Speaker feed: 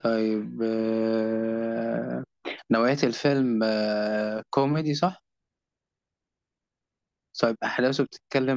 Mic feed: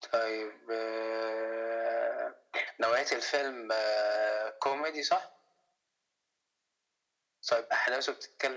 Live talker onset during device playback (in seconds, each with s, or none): none